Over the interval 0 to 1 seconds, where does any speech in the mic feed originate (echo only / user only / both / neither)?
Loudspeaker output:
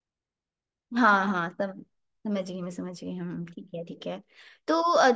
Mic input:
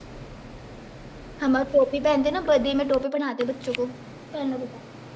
neither